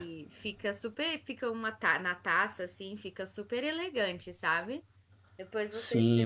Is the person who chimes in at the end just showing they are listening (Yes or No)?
No